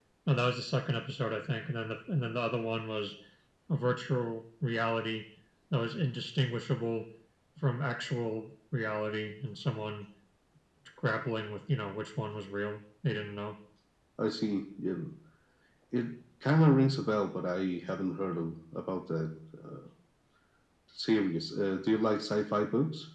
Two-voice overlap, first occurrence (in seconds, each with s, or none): none